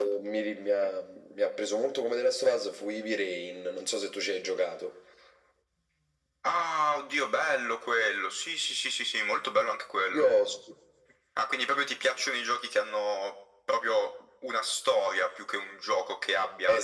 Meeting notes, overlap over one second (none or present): none